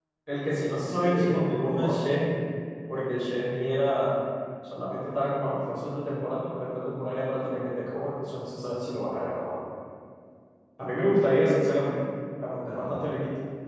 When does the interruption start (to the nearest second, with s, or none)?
1 s